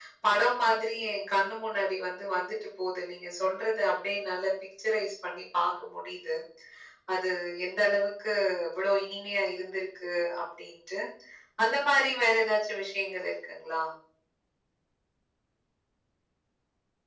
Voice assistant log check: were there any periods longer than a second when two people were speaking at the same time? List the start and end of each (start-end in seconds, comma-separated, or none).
none